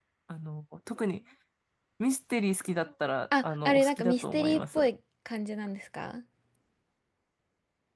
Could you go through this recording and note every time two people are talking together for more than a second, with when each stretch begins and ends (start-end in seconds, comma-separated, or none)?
3.4-4.8